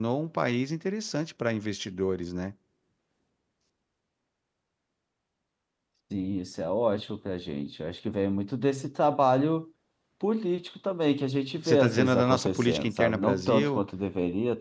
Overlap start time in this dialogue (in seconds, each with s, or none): 11.6 s